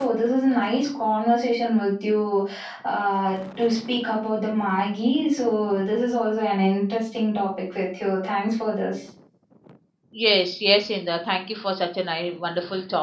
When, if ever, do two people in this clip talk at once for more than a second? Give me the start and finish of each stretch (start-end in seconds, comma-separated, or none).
none